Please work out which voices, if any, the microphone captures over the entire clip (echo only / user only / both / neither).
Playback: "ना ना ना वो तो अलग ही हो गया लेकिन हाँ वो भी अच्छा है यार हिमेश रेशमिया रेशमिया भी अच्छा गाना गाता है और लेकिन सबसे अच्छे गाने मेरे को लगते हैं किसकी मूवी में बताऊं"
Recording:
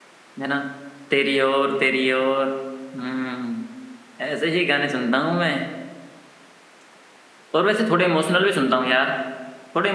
user only